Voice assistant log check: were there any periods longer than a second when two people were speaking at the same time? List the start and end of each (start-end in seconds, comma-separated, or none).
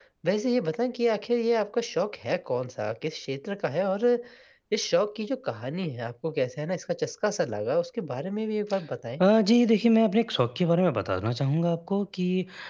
none